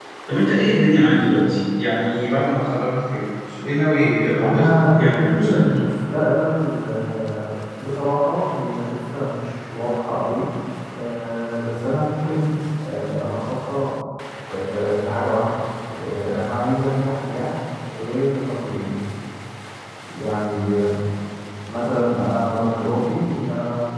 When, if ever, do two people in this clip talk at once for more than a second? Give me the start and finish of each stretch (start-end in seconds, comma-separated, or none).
4.4-5.8